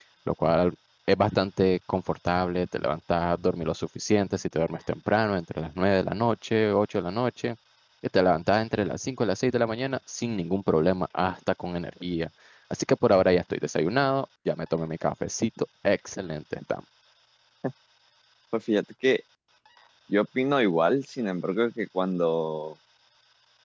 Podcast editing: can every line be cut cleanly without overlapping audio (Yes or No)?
Yes